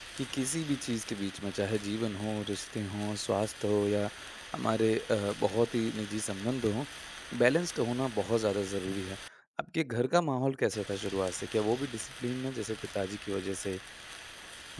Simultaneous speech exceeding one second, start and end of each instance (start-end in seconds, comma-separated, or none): none